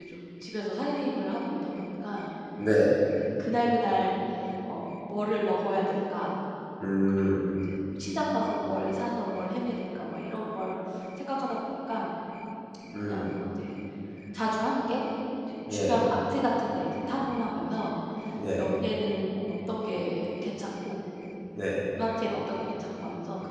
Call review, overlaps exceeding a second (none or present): none